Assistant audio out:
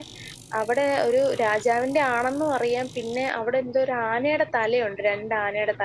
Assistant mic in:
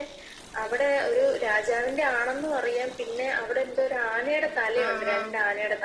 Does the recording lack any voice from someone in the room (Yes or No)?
No